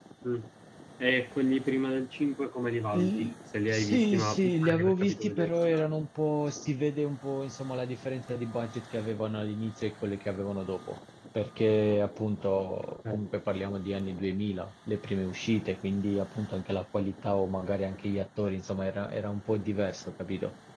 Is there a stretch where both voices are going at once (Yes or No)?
Yes